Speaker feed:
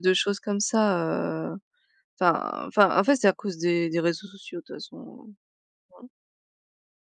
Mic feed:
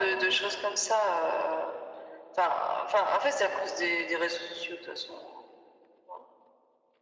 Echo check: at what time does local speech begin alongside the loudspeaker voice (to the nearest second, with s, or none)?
none